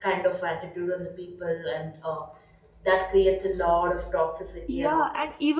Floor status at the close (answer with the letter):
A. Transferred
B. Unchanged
A